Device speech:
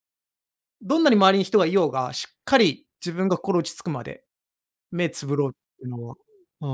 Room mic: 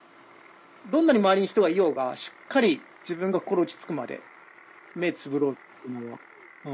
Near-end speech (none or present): none